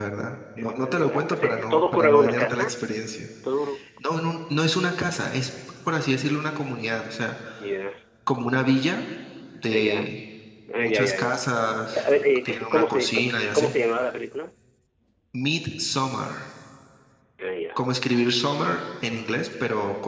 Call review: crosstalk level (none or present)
present